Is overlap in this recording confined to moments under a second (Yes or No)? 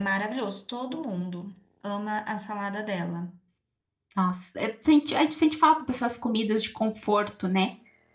Yes